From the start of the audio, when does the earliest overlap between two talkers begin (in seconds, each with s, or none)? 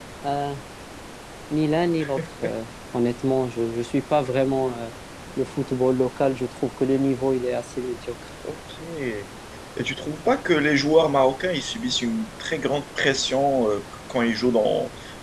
none